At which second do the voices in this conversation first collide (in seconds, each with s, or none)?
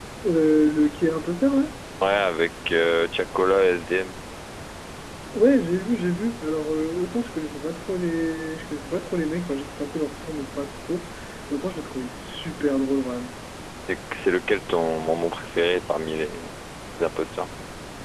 none